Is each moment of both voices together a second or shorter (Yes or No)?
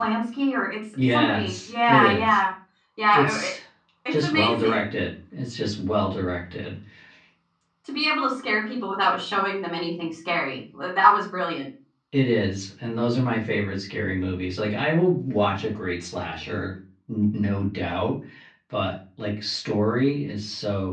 No